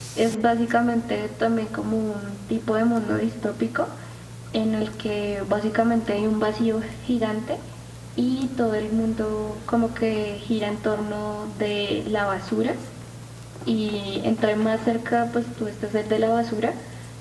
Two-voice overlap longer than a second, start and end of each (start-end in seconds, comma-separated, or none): none